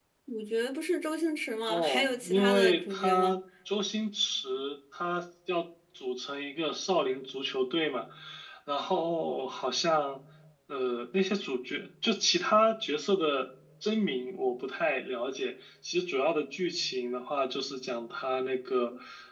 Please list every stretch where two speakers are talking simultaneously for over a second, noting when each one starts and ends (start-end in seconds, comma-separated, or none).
1.7-3.4